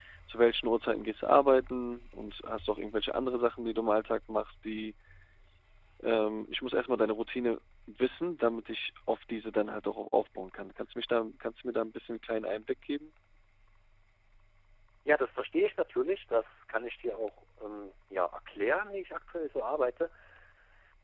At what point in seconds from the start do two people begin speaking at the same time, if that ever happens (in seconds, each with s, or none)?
none